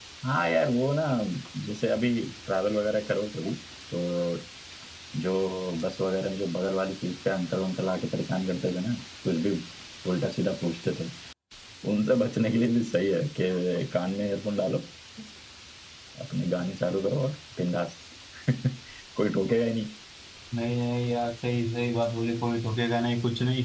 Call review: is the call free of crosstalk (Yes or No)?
Yes